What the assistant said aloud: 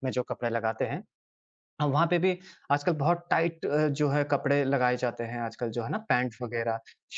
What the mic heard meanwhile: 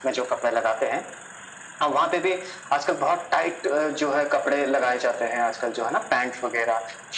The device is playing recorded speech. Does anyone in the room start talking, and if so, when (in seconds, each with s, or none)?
none